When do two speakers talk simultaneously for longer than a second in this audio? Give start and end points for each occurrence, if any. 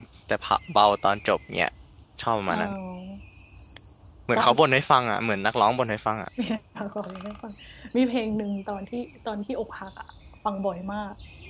none

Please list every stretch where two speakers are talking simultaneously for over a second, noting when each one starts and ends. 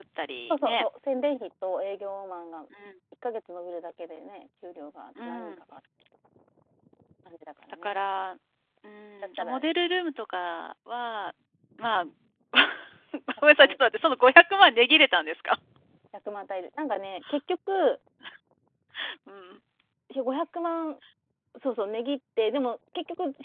none

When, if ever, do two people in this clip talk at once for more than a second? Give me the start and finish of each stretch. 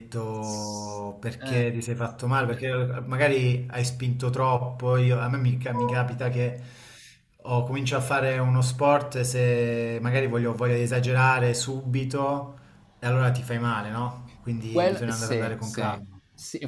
14.7-16.0

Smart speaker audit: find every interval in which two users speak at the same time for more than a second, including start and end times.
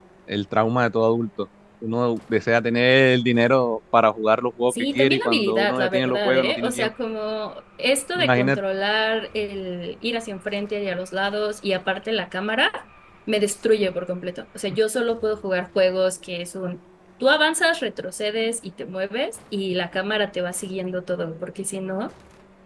4.7-6.9

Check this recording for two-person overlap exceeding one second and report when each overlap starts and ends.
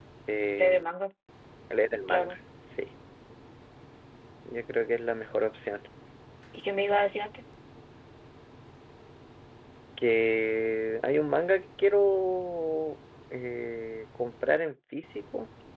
none

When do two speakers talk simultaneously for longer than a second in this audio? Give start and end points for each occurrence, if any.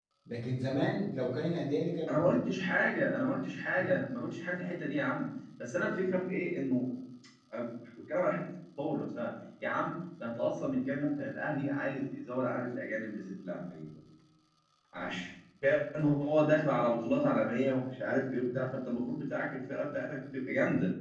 none

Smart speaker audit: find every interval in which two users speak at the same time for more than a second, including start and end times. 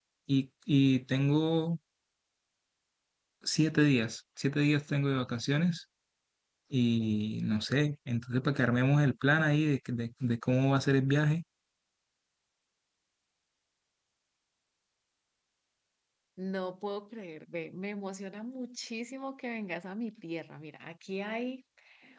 none

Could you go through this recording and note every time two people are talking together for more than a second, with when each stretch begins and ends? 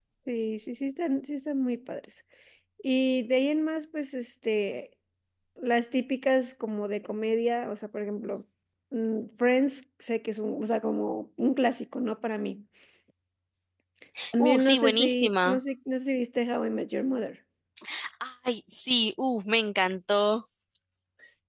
14.4-15.6

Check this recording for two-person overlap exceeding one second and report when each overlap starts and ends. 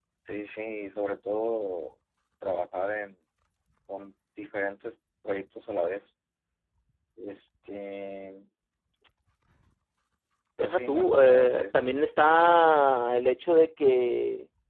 10.6-11.9

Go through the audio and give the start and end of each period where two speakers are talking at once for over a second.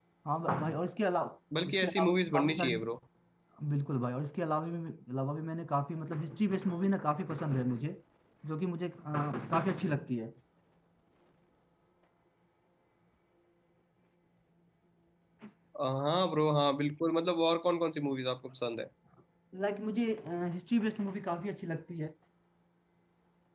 1.6-2.9

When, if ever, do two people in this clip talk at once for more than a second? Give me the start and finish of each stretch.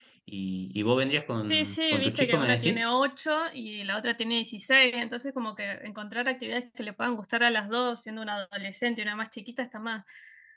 1.5-2.8

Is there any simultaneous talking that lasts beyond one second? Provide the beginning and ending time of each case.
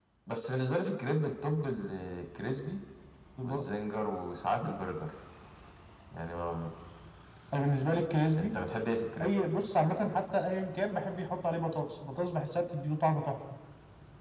none

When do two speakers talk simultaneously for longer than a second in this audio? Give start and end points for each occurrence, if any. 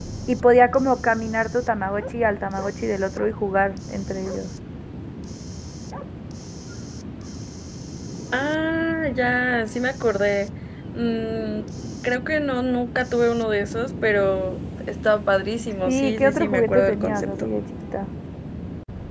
15.8-17.5

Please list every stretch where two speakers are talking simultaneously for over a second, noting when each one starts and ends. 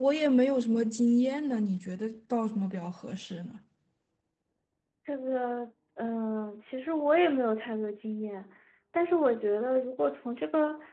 none

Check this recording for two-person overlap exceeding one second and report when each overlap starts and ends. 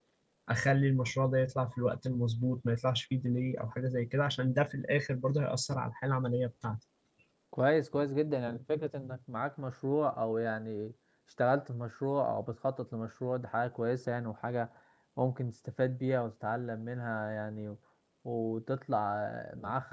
none

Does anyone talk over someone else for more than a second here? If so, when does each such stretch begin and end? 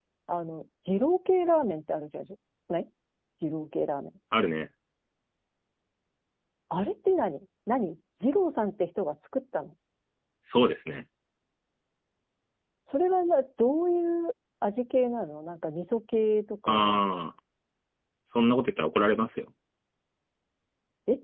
none

